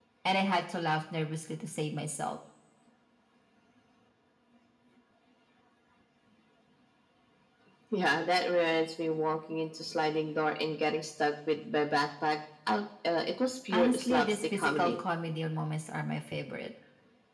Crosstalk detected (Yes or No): Yes